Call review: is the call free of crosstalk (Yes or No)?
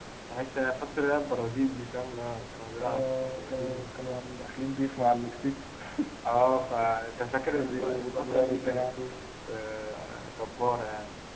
No